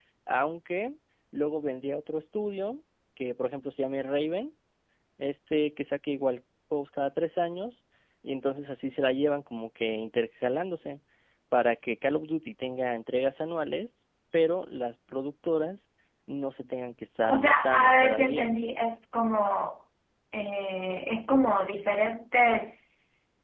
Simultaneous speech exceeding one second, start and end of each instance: 17.3-18.5

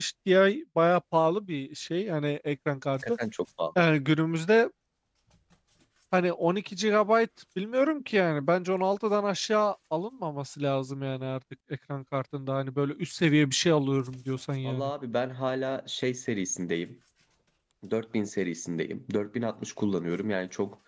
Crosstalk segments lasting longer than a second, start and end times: none

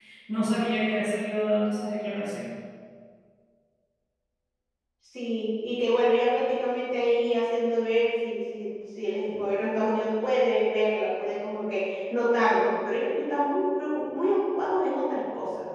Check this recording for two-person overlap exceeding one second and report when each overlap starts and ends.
none

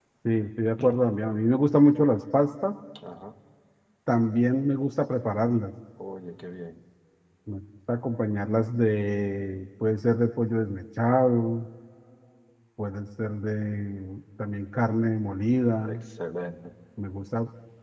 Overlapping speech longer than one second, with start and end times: none

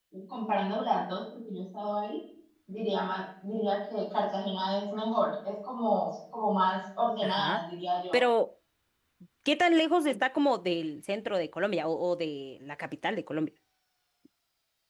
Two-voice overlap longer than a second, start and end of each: none

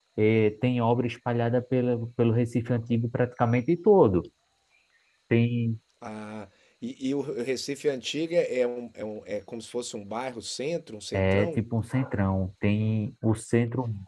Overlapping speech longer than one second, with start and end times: none

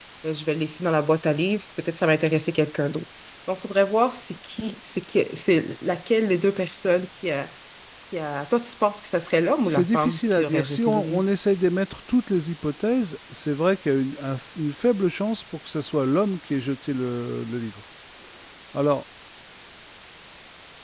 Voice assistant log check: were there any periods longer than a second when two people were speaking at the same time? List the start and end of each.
9.6-11.2

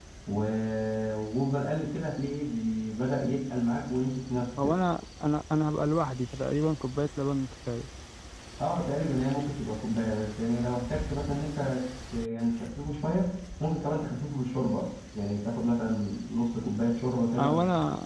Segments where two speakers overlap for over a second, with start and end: none

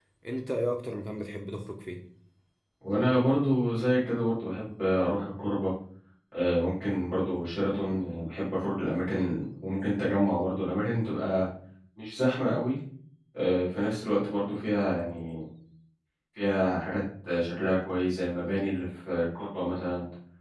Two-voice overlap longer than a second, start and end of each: none

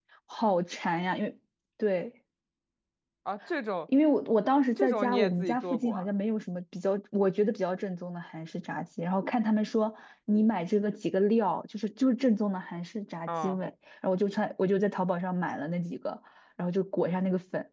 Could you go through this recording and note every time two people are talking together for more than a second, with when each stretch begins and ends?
4.8-6.1

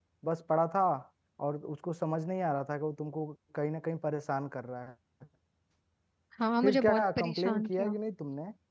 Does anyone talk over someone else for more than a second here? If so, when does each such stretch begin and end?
6.6-7.9

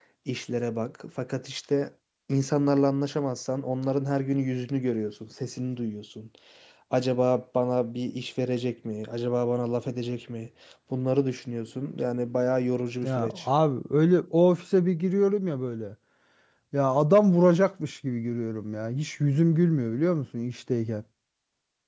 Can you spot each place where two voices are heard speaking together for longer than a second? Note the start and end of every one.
none

